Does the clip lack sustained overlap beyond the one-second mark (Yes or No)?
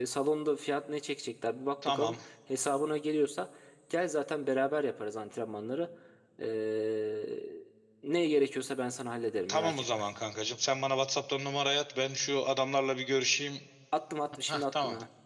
Yes